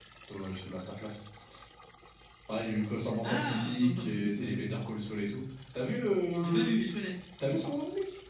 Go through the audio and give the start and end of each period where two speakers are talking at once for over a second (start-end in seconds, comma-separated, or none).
3.2-4.6